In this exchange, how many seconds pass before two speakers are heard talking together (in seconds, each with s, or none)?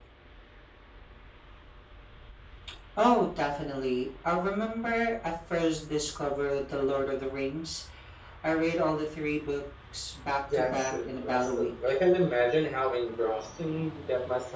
10.4 s